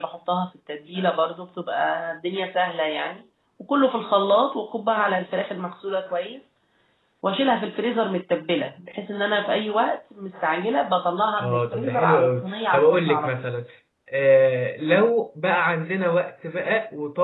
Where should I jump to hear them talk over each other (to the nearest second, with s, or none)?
11 s